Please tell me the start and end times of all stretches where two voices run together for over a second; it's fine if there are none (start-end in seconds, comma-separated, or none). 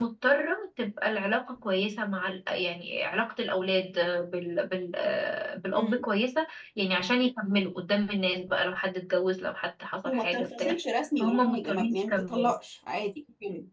10.0-12.5